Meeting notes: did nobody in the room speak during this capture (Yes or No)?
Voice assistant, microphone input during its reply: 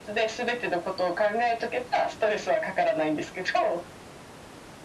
Yes